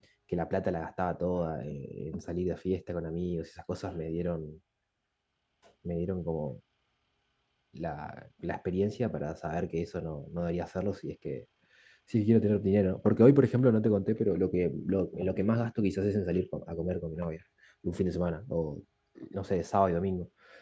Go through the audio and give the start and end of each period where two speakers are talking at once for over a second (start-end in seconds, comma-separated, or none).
none